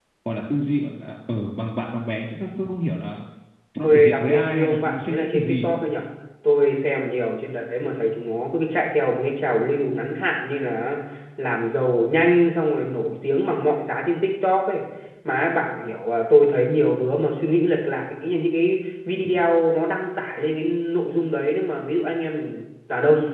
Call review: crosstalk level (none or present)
present